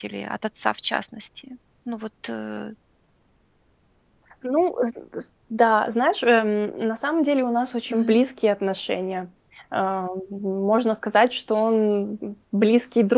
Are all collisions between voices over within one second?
Yes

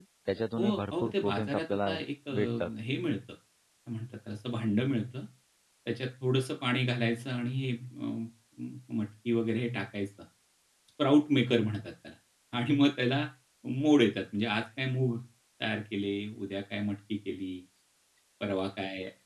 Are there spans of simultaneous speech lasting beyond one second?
Yes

